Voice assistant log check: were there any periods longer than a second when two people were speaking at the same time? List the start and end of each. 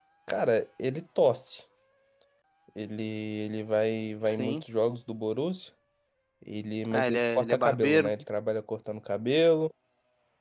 6.9-8.1

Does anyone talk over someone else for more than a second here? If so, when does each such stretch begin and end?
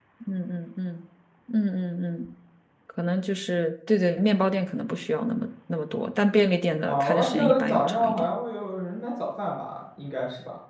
6.8-8.3

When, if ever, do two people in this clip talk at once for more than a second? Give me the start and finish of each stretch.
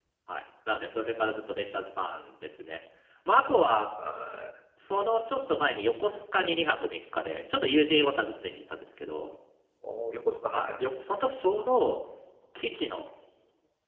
none

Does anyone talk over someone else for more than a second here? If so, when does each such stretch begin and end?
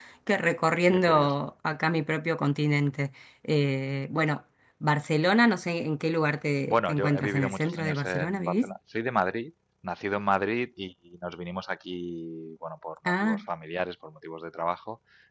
6.7-8.7

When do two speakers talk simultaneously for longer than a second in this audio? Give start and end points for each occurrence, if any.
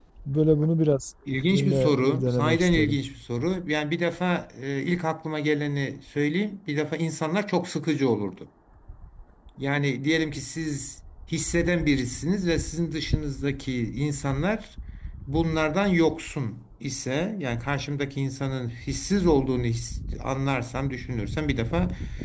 1.5-3.0

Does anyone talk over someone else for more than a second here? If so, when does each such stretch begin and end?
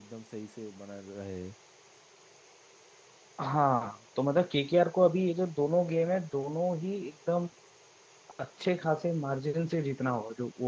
none

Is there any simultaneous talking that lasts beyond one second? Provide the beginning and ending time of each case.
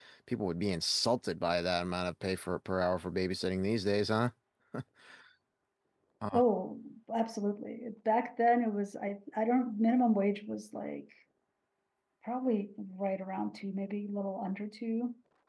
none

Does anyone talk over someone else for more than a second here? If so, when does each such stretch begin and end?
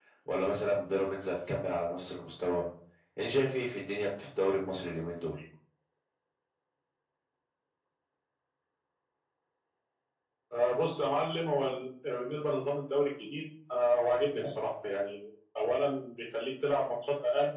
none

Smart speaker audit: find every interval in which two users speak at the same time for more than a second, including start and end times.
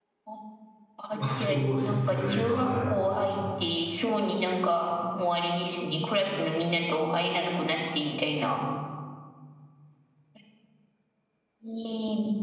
1.4-2.9

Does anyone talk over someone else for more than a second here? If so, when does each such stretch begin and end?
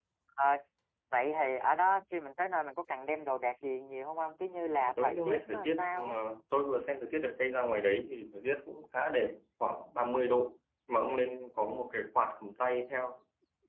4.7-6.2

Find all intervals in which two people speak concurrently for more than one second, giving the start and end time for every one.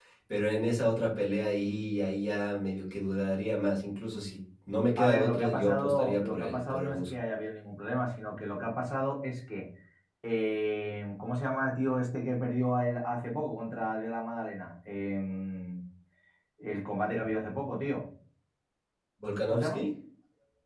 5.0-7.0

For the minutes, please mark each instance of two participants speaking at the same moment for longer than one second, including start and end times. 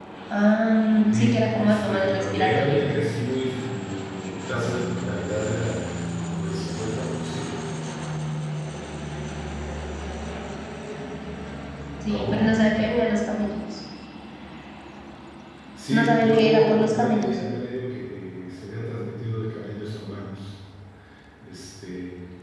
1.1-2.9, 15.9-17.4

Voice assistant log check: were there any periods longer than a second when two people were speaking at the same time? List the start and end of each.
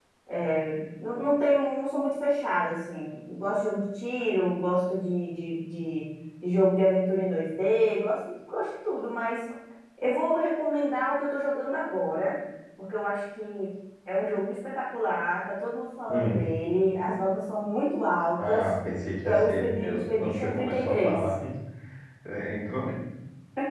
19.2-21.2

